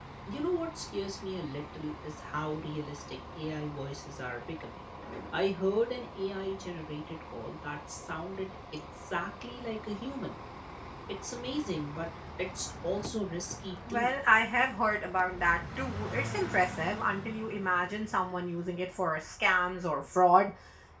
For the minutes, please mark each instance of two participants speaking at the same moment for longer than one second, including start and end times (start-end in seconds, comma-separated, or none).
none